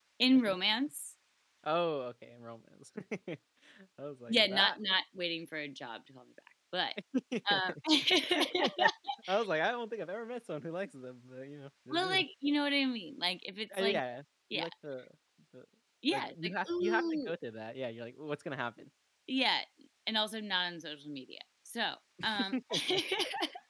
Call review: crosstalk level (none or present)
present